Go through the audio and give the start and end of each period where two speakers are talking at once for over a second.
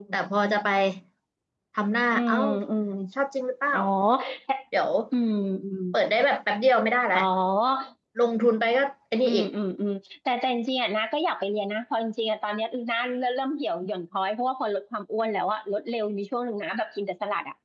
none

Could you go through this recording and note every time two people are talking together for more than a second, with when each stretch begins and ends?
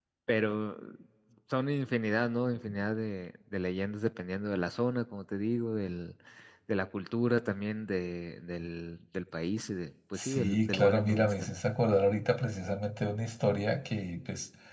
10.2-11.5

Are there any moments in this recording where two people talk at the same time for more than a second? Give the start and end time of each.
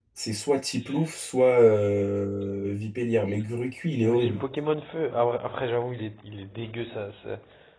none

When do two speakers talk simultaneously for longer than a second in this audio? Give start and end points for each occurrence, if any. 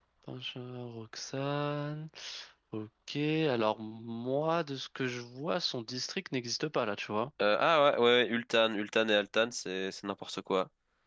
none

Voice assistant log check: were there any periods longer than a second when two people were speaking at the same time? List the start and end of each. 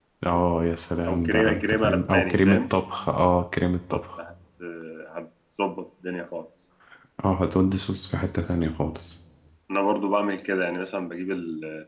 1.1-2.6

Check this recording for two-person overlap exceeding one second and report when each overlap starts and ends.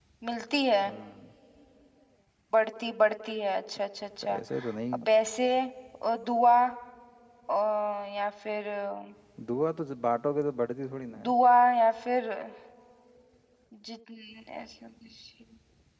none

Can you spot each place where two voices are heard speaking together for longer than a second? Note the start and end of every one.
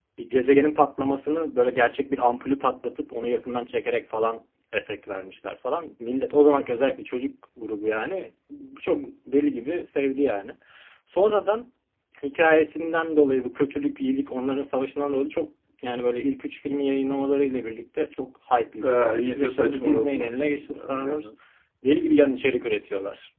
18.8-21.2

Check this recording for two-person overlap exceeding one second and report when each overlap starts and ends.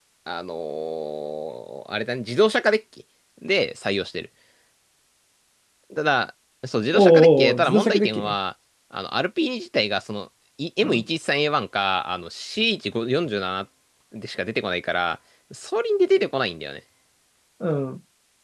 6.9-8.3

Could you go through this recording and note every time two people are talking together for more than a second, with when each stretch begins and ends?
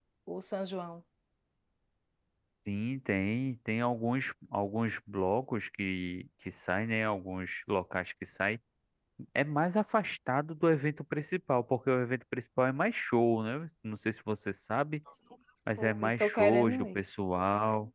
15.8-17.0

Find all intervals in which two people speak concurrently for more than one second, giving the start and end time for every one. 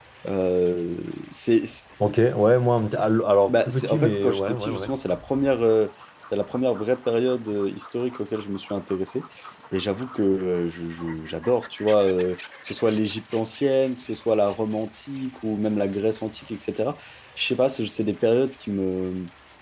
3.5-4.9

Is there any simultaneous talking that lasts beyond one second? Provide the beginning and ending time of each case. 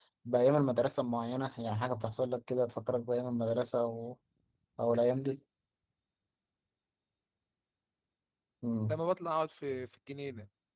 none

